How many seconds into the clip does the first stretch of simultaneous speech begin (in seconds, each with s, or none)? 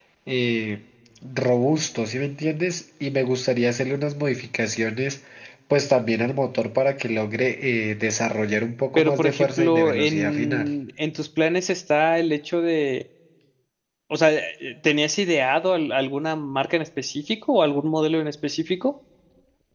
9.0 s